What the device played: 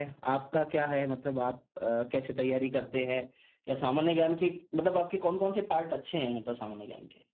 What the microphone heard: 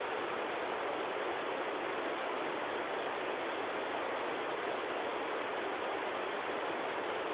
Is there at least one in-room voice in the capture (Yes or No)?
No